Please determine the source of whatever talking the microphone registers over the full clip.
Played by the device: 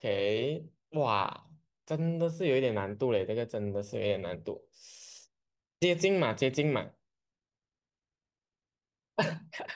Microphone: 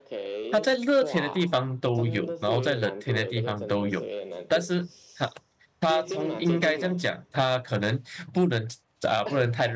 both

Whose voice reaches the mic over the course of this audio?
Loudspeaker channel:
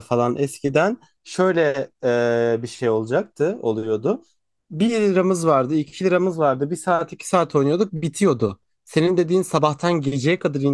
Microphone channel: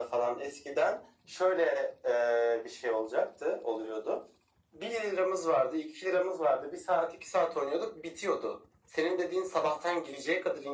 echo only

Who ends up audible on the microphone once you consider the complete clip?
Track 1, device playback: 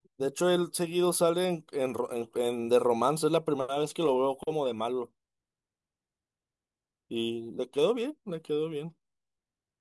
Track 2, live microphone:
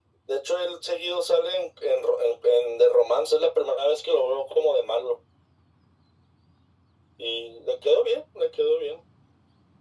echo only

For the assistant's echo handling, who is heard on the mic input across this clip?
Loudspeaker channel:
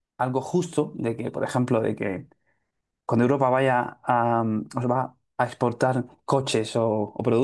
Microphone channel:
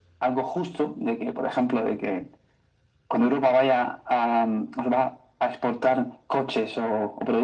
echo only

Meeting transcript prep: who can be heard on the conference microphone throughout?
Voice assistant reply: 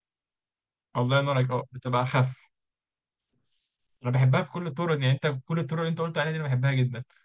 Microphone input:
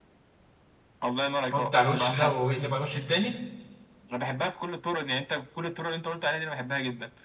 both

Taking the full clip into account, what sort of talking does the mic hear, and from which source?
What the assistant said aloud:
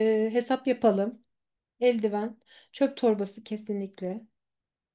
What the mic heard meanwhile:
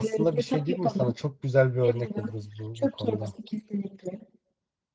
both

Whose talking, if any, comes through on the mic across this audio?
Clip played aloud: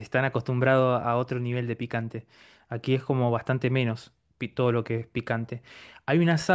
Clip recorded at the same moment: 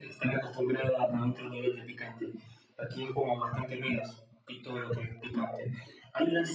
echo only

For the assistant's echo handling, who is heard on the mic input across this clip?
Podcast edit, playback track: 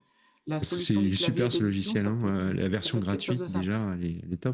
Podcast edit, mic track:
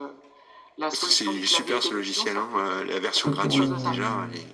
both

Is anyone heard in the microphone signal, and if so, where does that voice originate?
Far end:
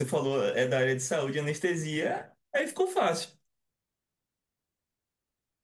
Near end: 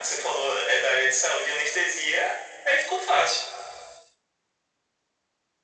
echo only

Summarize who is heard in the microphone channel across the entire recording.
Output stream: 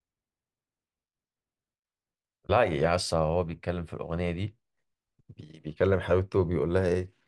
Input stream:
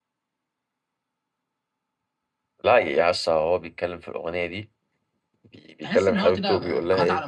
both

